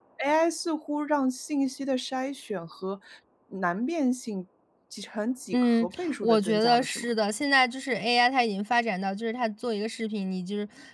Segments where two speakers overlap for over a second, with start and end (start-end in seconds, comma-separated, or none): 5.5-7.1